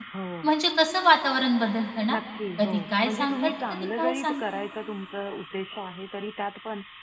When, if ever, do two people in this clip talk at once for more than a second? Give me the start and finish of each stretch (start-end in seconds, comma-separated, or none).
2.6-4.6